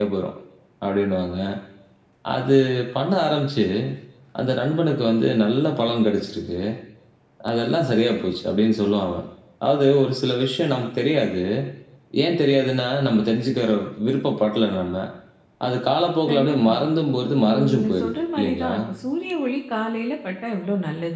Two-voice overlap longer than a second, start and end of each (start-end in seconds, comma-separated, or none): 17.4-18.7